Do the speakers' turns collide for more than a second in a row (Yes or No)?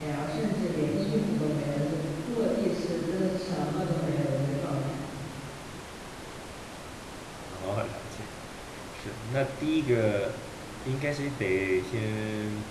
No